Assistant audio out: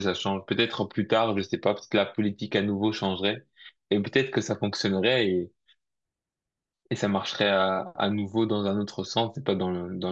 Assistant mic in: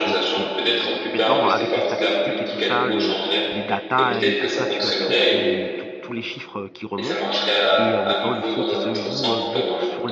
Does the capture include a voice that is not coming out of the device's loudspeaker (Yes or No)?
Yes